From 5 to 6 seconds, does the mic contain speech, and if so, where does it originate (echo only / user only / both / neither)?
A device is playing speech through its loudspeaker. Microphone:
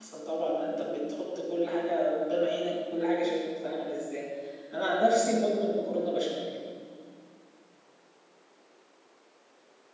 user only